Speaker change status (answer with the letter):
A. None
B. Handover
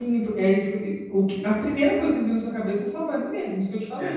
A